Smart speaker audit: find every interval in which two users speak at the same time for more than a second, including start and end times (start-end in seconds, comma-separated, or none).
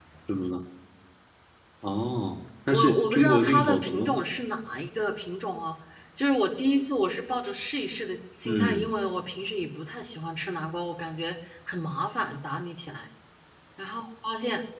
2.7-4.2